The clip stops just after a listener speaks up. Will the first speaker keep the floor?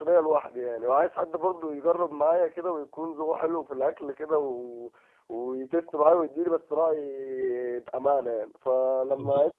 Yes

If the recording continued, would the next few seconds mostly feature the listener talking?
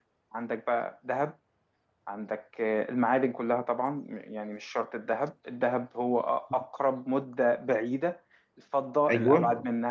No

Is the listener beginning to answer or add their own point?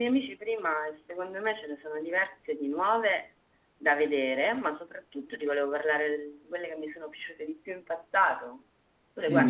Yes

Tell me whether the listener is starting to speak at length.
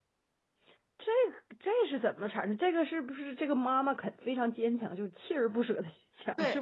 Yes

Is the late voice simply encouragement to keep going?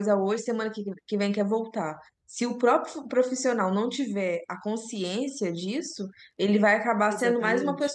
Yes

